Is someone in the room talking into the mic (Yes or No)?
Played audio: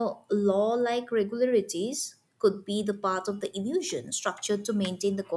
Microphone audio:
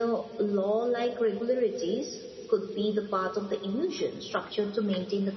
No